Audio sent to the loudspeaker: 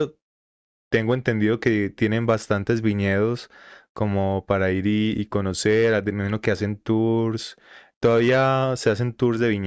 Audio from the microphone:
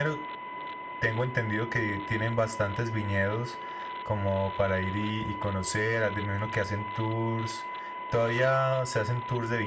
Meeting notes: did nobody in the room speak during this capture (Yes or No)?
Yes